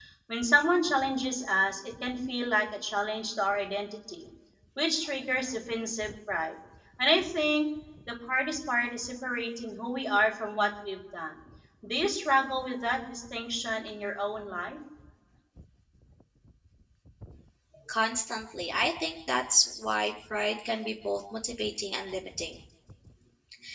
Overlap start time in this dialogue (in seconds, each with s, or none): none